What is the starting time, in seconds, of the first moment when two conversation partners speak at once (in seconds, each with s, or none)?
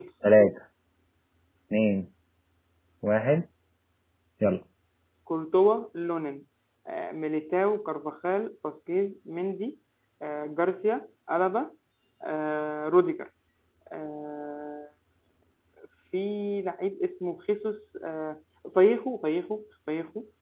none